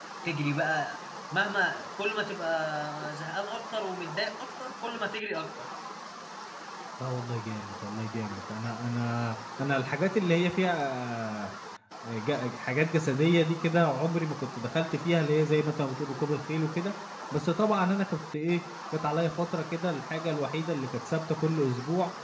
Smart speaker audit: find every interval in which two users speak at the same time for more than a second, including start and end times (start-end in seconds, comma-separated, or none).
none